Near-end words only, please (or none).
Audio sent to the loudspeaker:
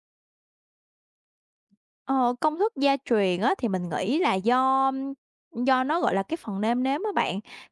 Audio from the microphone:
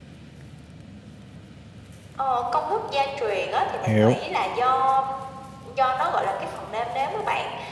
hiểu.